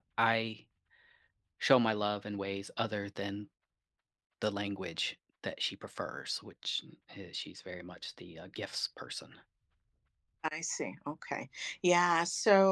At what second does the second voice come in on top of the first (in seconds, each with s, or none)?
none